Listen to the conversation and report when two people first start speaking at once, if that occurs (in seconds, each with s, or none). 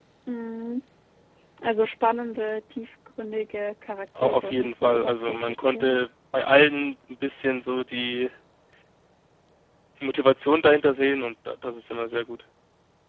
4.2 s